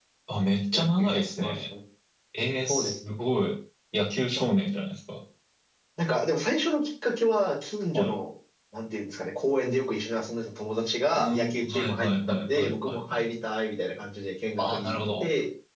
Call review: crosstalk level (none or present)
present